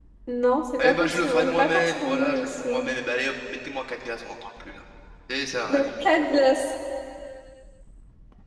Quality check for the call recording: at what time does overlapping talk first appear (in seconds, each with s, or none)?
0.8 s